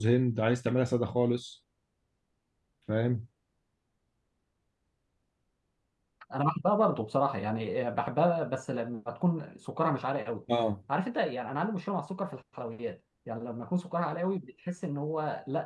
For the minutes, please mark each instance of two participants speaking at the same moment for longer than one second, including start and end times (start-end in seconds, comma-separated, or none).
none